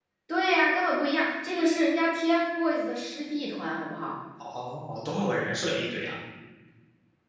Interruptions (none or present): none